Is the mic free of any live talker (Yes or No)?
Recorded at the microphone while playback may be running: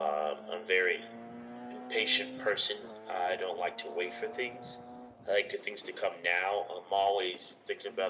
Yes